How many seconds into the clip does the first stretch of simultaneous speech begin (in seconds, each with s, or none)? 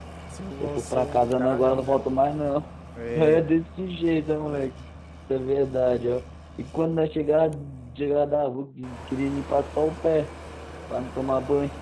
0.6 s